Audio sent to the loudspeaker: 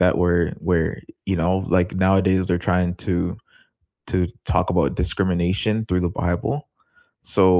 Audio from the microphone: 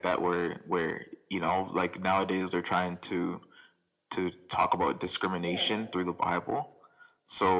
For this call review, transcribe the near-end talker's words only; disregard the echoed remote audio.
yeah

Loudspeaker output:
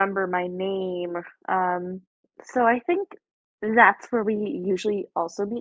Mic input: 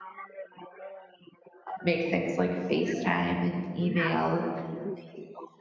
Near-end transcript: make things like FaceTime and email

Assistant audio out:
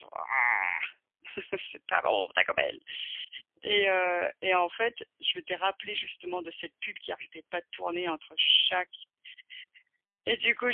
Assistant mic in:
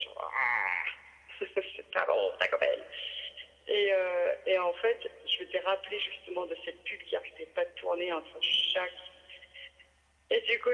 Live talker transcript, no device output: none

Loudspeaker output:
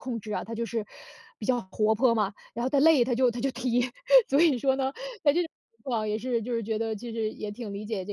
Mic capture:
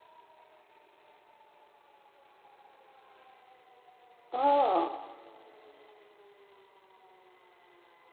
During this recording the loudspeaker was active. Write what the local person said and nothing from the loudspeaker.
哦，

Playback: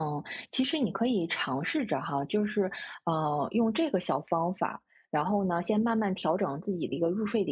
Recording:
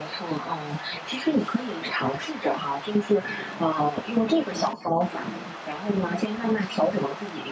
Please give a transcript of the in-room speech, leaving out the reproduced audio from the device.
none

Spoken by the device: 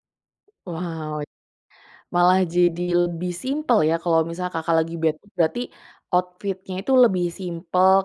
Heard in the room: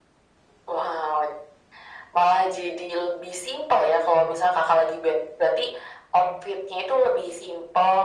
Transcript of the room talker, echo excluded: none

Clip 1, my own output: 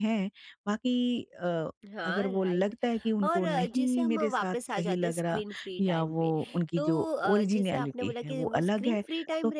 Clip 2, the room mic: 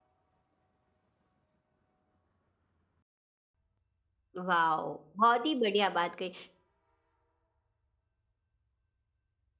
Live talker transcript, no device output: वाओ! बहुत ही बढ़िया बात कही

